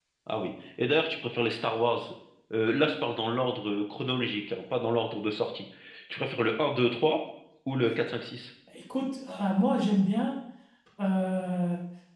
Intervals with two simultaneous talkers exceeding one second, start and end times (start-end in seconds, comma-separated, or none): none